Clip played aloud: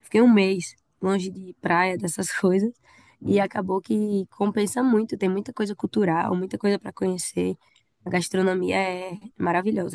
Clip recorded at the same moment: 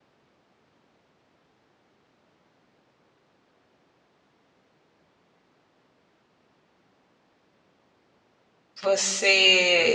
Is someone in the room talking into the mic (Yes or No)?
Yes